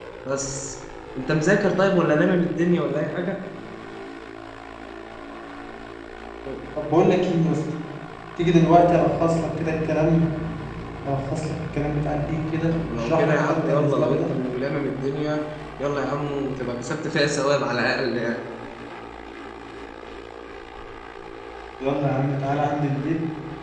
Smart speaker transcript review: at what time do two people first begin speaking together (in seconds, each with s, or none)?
12.7 s